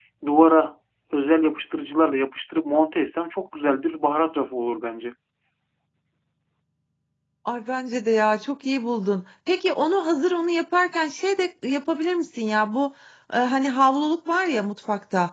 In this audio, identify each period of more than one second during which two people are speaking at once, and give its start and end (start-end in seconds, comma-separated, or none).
none